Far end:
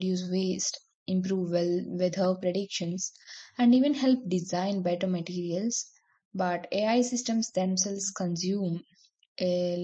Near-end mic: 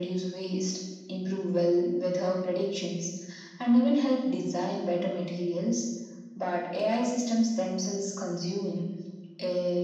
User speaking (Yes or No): No